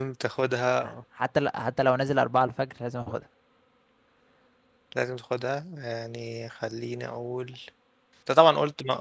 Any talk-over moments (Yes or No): No